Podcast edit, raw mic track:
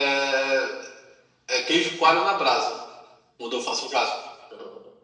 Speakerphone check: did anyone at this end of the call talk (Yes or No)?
No